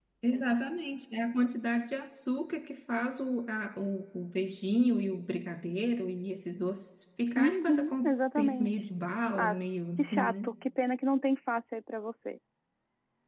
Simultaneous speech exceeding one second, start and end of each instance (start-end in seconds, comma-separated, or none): 7.3-8.8